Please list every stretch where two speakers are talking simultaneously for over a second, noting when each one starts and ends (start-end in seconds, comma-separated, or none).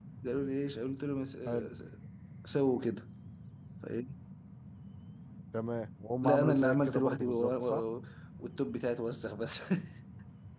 6.2-7.8